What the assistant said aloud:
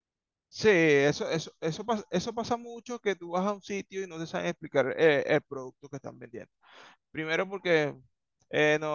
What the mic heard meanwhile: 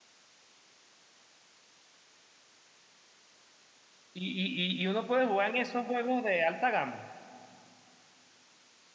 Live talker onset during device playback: 4 s

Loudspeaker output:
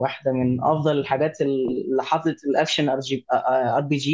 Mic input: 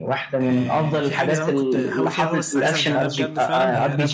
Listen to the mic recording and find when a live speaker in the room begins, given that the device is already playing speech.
0 s

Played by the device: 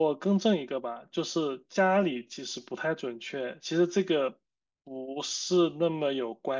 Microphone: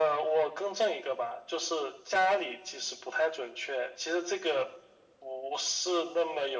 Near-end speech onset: none

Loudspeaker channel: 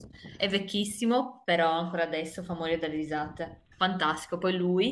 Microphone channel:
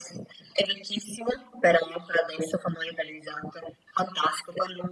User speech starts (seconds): none

